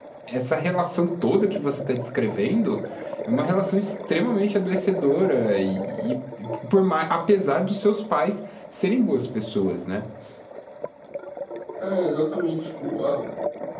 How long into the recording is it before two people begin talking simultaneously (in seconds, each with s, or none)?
none